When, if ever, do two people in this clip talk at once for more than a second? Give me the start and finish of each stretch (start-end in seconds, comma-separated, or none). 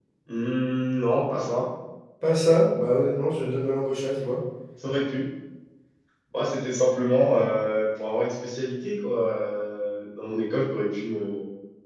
none